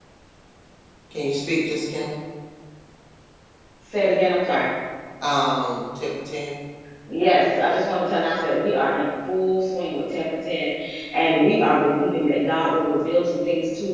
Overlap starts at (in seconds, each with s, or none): none